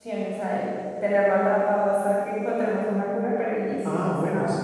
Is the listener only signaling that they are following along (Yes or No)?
No